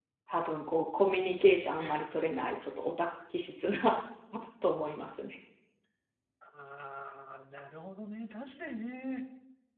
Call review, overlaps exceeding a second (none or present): none